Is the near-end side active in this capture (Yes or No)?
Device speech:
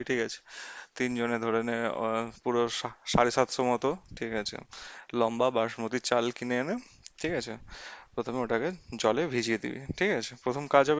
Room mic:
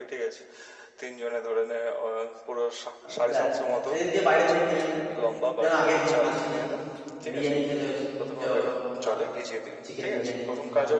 Yes